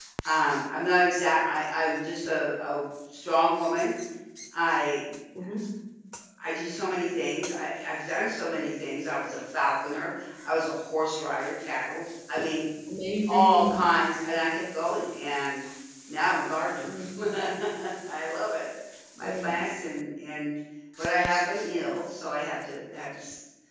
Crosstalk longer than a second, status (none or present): none